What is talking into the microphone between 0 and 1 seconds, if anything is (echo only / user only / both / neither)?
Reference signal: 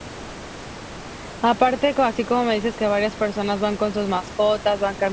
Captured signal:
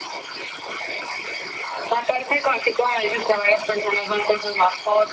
neither